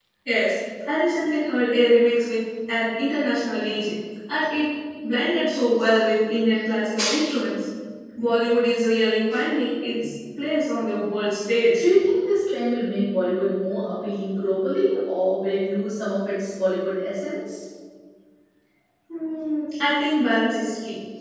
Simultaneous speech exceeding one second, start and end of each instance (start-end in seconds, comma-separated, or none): none